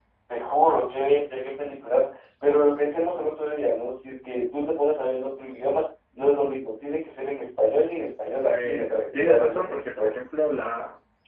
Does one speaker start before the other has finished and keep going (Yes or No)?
Yes